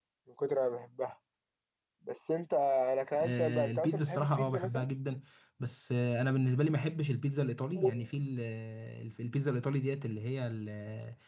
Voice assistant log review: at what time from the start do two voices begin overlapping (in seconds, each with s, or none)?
3.1 s